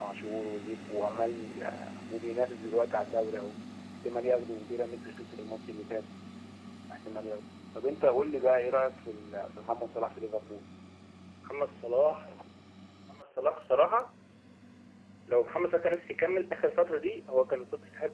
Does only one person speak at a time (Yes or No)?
Yes